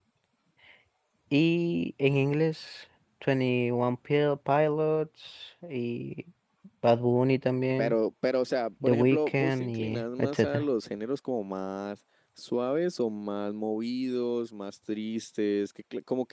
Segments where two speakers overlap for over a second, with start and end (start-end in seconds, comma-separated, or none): 8.8-10.7